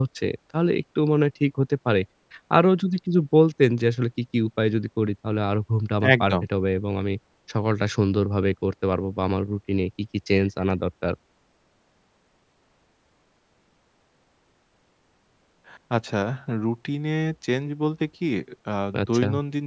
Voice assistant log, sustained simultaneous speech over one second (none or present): none